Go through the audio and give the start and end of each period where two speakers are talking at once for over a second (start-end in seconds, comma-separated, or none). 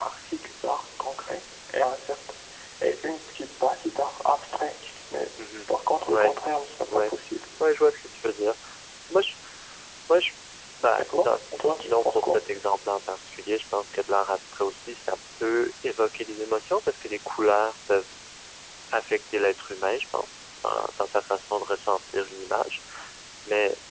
11.0-12.4